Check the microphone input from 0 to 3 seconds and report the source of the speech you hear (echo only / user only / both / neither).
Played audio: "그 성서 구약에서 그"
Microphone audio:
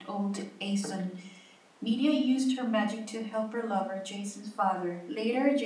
user only